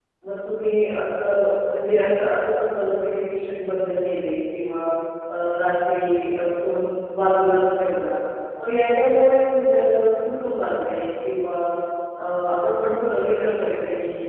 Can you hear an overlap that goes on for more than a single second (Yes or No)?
No